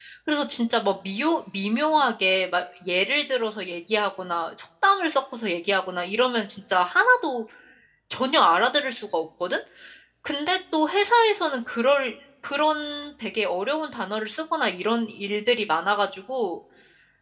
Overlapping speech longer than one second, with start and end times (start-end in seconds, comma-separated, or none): none